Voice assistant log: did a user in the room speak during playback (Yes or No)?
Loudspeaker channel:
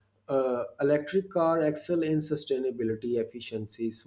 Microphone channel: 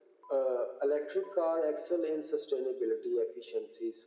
No